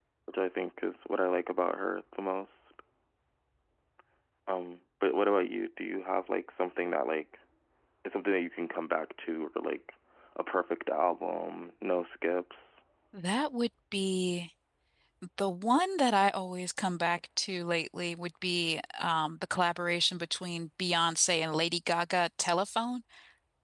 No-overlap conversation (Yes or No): Yes